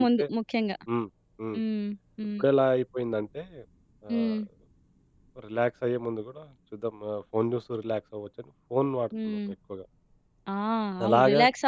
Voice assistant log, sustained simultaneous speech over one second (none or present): none